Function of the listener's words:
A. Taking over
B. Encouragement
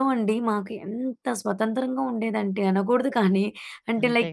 B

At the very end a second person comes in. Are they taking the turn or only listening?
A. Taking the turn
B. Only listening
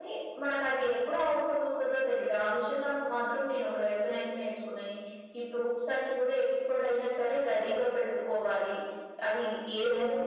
B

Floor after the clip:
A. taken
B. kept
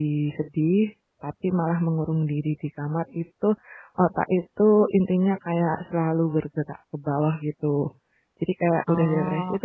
B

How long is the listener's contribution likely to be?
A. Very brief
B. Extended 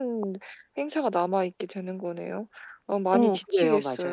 B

